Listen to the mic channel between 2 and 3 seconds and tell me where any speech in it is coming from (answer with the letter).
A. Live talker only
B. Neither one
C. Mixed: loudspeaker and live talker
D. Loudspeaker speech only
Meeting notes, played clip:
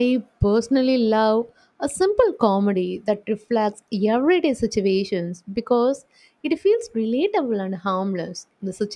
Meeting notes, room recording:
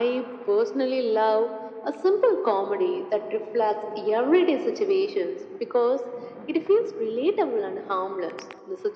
D